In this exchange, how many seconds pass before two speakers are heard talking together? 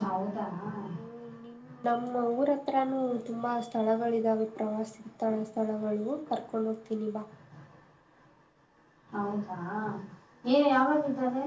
none

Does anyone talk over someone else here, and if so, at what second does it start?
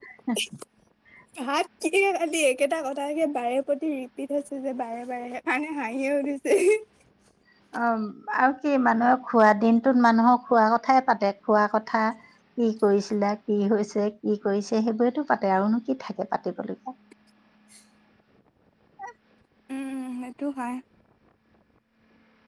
none

